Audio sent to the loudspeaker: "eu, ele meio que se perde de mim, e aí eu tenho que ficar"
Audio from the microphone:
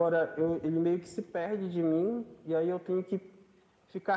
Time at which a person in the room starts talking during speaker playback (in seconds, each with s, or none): none